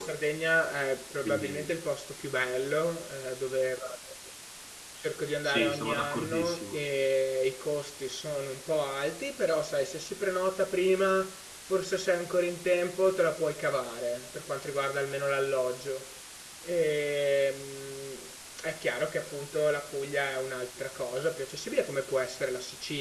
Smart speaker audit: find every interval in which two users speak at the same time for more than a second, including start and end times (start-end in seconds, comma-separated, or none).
5.4-6.8